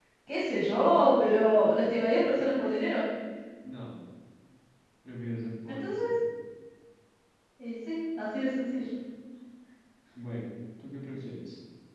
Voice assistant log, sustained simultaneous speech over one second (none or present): none